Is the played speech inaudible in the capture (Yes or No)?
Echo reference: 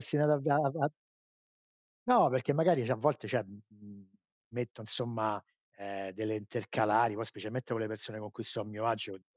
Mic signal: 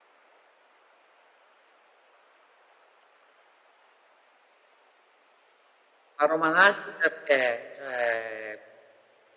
Yes